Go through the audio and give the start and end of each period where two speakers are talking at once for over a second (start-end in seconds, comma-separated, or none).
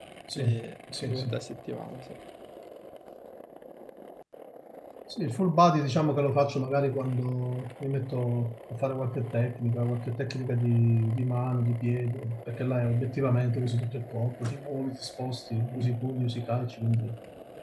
none